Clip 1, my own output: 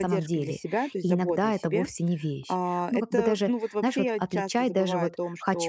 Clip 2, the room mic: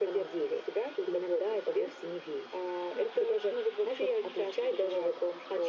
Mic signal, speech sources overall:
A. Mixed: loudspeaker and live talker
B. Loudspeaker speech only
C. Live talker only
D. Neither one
B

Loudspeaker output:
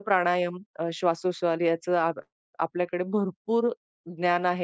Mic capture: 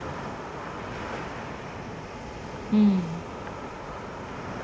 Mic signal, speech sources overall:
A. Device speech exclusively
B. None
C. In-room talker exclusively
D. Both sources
C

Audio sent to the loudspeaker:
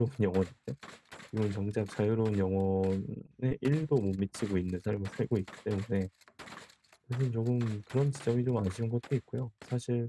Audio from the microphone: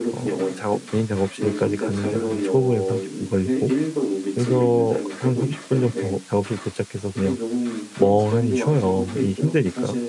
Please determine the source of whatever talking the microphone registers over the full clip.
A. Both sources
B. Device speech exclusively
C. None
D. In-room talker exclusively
A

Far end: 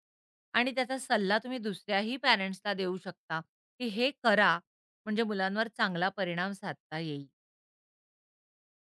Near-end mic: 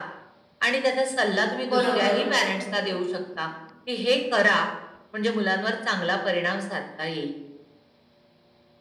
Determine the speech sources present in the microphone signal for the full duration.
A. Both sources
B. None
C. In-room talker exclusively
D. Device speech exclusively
A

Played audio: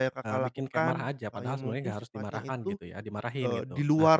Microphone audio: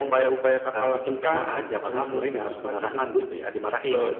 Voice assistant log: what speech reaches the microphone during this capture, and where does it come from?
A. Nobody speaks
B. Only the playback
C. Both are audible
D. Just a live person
B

